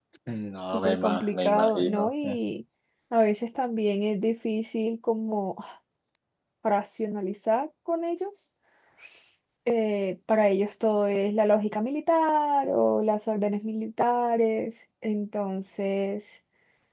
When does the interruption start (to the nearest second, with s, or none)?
1 s